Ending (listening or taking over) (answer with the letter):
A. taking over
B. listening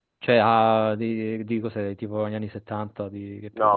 A